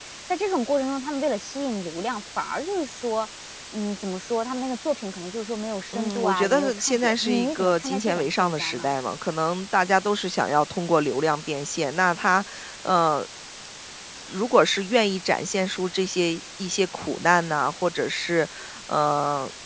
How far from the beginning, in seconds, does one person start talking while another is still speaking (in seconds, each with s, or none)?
5.9 s